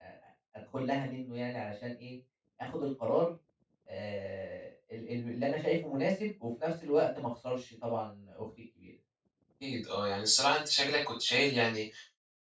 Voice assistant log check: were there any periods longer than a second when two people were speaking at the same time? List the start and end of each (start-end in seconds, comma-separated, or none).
none